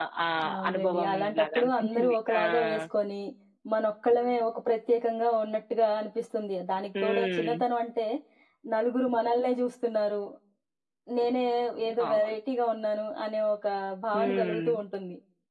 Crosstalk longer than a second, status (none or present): present